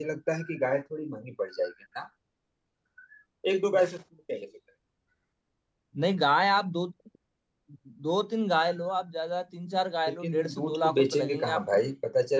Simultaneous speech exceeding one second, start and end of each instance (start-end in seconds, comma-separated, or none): 10.1-11.6